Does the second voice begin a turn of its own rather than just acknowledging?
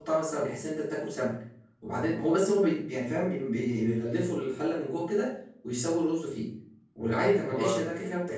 No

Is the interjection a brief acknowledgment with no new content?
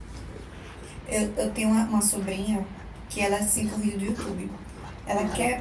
Yes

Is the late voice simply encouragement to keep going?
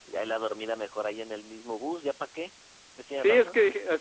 No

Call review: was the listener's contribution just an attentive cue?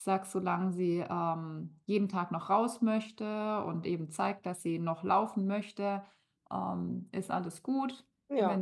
Yes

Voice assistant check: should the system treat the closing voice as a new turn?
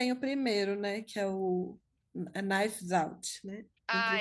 Yes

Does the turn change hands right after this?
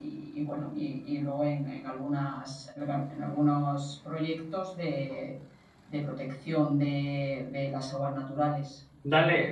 Yes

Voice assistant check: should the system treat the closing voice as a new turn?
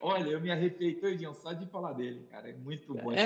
Yes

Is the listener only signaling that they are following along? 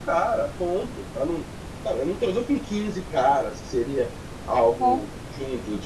Yes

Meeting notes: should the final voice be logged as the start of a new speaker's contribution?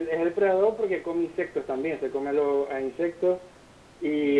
Yes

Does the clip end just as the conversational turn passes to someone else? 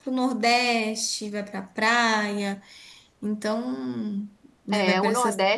Yes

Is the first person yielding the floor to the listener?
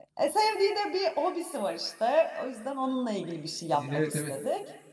Yes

